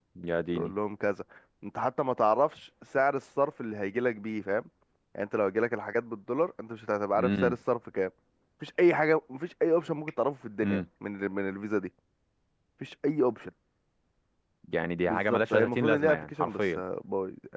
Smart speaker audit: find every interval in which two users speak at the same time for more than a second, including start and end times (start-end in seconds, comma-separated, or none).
15.1-16.8